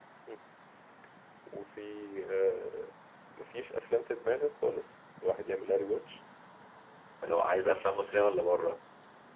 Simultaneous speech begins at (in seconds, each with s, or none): none